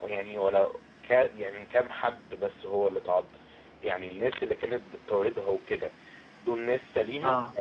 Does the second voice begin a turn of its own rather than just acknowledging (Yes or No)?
No